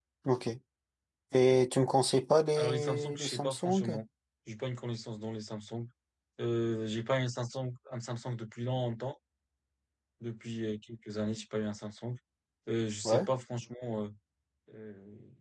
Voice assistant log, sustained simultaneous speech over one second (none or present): present